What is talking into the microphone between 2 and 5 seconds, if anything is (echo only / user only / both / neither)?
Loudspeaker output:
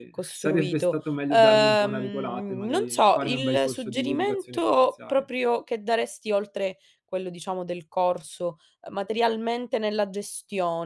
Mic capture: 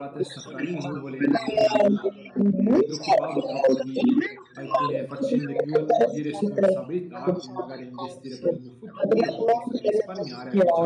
both